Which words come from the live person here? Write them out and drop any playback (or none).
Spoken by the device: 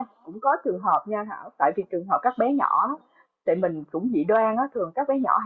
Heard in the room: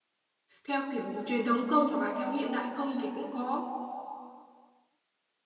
theo kiểu truyền thống không hoặc là theo hiện đại không thì cũng có